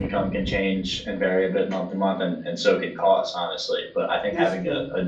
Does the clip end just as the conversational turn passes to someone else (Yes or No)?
No